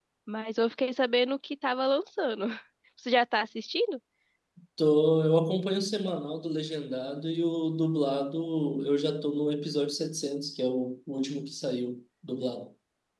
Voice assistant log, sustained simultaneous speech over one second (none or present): none